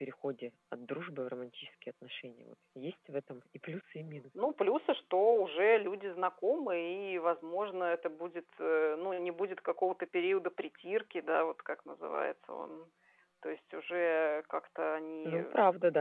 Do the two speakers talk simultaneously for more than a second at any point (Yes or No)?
No